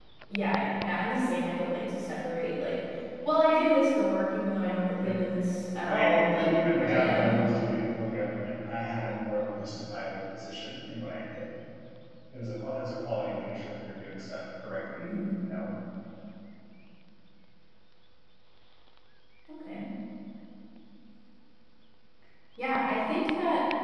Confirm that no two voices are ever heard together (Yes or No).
No